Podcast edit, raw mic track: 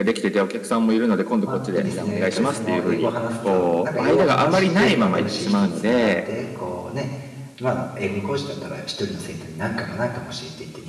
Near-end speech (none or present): present